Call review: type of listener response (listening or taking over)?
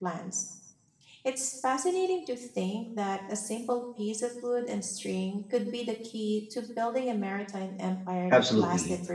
taking over